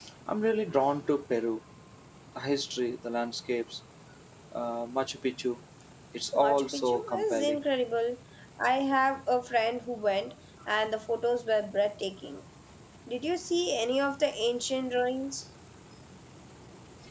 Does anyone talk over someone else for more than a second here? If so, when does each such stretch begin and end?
6.4-7.6

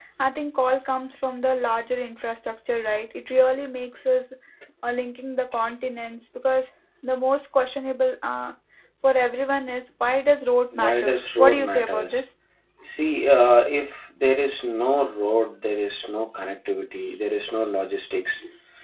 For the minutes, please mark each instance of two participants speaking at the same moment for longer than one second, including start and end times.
10.8-12.2

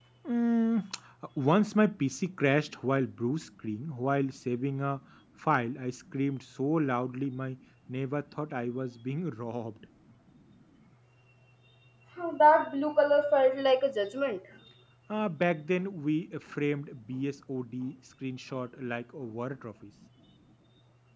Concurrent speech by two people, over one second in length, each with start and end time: none

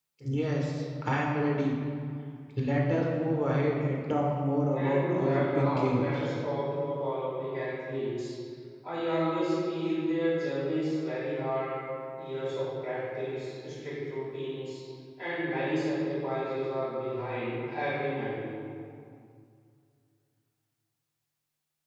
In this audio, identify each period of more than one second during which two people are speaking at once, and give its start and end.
4.7-6.3

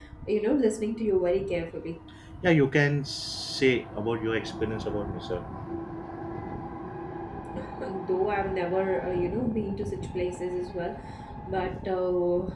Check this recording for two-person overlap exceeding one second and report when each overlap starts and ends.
none

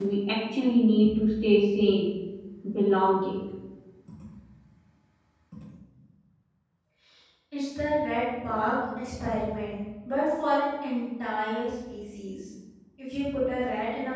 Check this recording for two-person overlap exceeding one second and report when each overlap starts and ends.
none

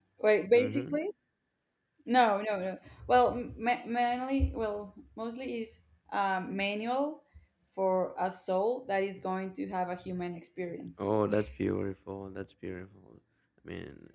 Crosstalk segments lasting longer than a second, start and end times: none

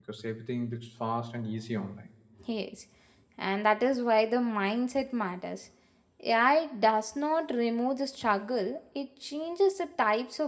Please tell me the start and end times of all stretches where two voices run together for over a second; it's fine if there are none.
none

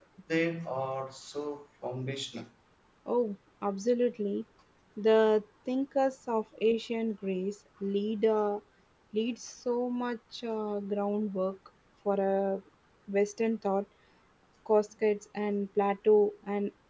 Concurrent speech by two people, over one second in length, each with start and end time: none

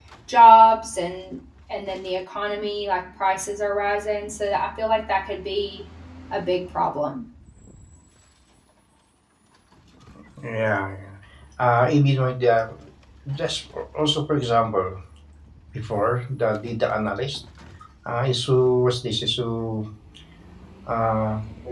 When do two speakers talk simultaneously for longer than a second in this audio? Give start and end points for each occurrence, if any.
none

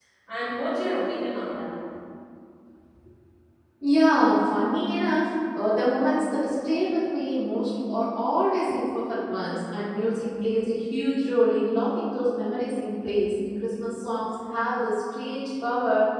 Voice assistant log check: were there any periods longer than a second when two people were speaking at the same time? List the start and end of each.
none

